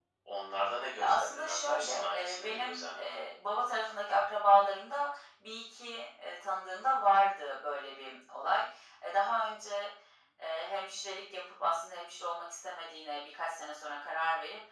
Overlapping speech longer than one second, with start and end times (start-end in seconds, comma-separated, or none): 1.0-3.2